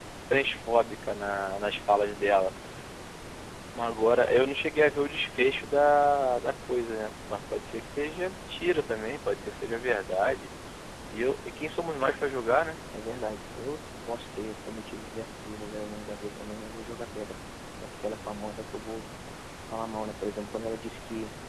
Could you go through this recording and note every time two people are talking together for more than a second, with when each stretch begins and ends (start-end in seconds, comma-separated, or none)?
none